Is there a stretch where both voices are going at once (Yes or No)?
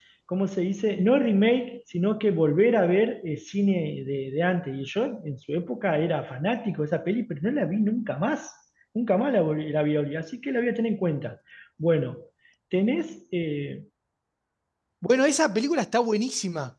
No